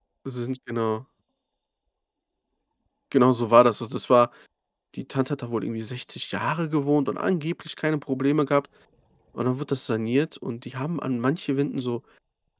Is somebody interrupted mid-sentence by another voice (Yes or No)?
No